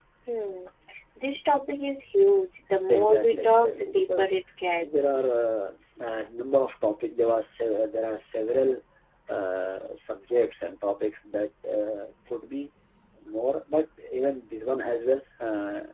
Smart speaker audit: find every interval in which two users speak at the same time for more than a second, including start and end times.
2.9-4.3

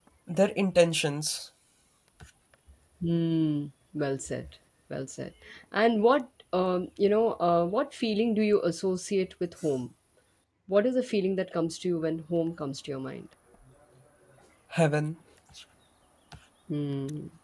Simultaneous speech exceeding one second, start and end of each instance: none

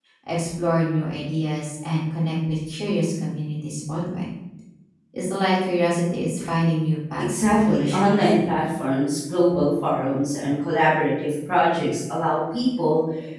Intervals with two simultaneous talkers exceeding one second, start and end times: 7.2-8.5

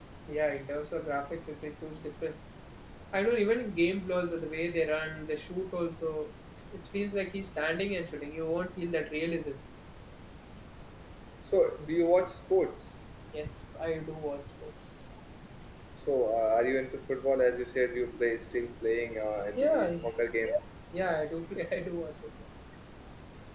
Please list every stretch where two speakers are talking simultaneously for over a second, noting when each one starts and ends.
none

